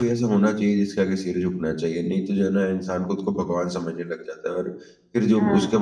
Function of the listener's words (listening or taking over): listening